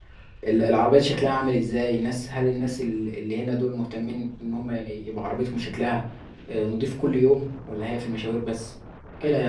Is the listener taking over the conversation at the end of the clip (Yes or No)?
Yes